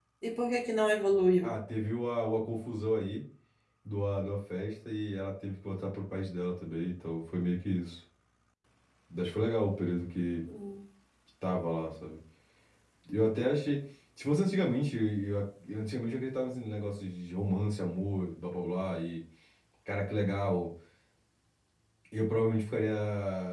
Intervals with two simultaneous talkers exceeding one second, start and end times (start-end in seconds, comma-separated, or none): none